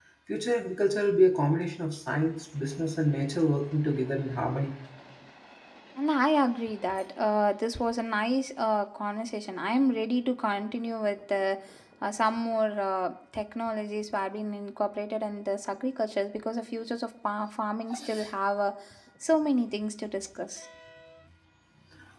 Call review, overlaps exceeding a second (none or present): none